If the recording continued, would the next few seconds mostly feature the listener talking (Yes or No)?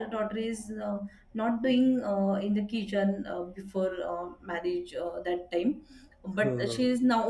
No